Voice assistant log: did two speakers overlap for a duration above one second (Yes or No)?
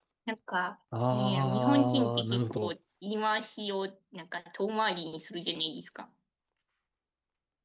Yes